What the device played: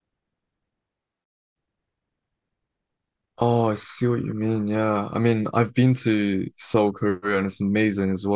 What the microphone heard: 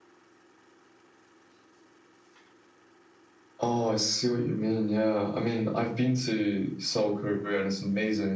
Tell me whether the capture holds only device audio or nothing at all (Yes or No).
Yes